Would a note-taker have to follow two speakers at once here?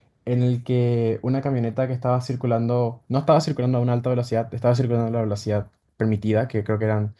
No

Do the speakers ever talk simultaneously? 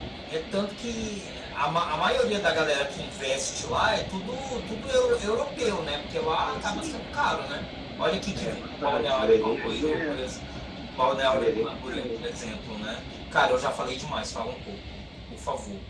Yes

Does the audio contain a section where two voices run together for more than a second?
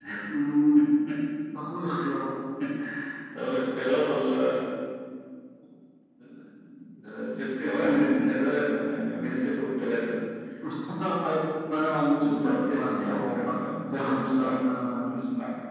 Yes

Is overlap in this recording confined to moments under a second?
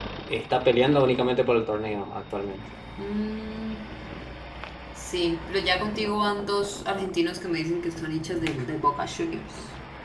Yes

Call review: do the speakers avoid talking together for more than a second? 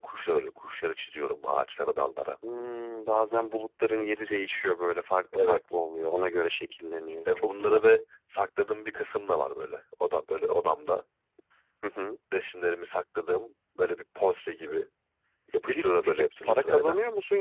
No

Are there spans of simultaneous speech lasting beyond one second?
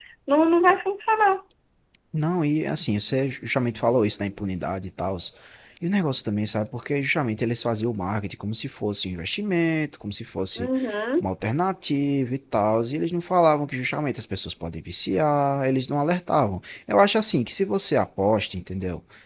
No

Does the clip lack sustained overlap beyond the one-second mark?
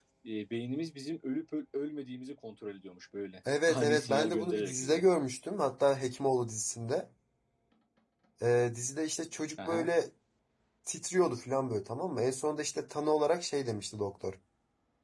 No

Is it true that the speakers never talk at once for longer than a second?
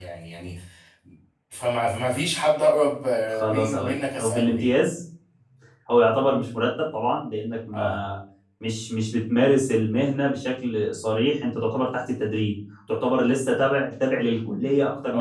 No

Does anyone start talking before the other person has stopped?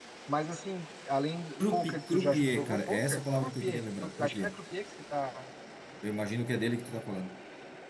Yes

